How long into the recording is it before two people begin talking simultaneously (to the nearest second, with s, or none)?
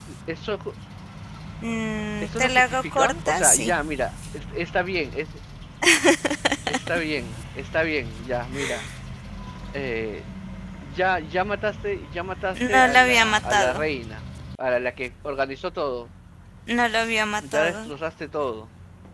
2 s